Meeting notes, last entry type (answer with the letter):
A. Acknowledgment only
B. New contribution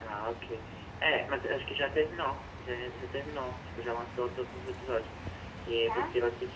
A